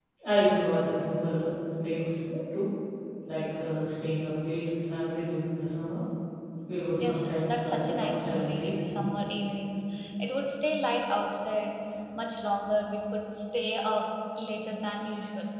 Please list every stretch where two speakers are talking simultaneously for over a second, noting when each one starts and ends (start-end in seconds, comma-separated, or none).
7.0-8.9